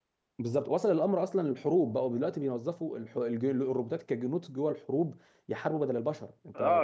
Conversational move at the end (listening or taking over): taking over